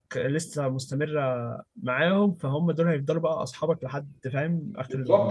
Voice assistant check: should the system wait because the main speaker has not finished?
No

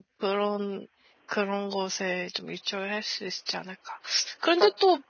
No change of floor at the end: Yes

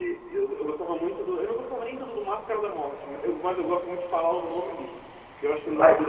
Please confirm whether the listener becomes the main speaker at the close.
No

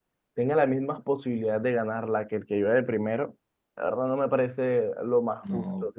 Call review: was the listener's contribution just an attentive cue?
No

